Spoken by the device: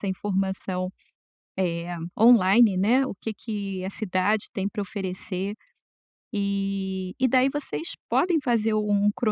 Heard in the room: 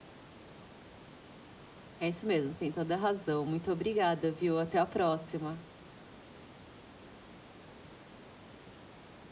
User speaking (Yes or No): Yes